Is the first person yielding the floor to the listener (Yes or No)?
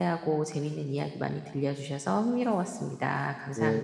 Yes